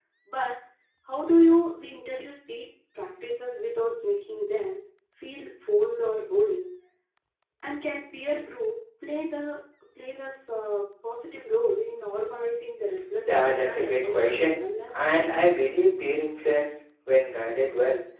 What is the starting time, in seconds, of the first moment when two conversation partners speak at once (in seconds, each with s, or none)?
13.2 s